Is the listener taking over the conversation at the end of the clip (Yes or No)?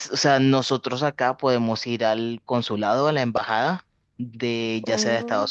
No